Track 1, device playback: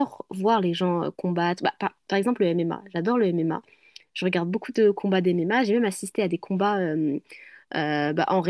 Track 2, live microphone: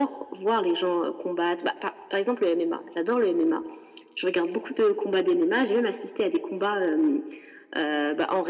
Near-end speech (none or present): none